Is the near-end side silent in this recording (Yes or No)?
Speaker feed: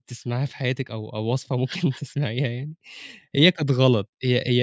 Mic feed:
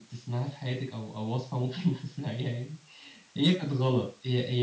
Yes